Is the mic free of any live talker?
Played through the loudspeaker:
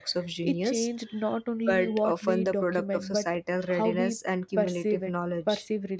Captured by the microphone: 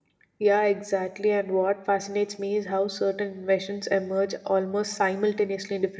No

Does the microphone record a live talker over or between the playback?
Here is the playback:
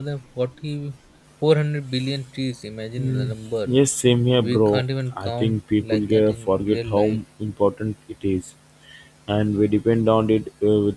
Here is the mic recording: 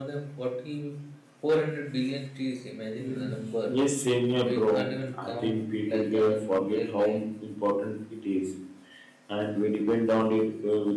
No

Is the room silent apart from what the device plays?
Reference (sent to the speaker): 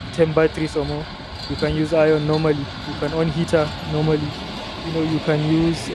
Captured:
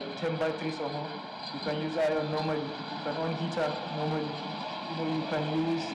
Yes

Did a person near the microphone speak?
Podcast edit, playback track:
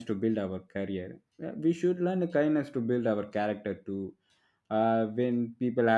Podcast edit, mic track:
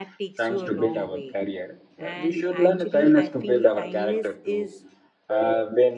Yes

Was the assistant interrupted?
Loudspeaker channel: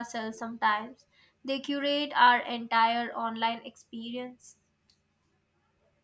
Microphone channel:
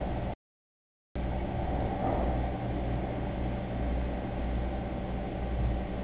No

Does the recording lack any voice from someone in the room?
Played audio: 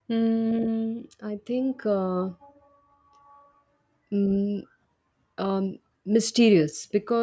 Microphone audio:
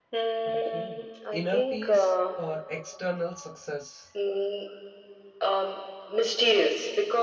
No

